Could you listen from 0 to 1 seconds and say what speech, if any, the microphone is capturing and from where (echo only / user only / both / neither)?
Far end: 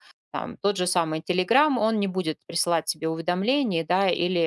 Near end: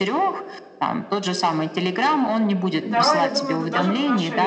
echo only